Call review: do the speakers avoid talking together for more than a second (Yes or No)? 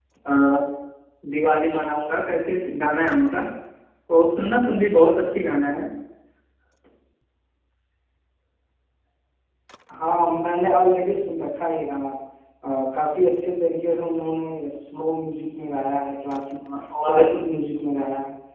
Yes